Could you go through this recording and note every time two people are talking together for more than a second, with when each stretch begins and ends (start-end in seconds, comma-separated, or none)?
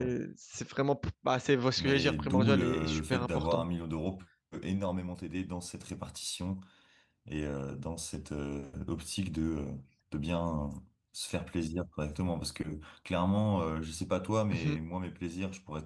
1.8-3.6